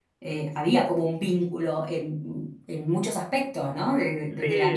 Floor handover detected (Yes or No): No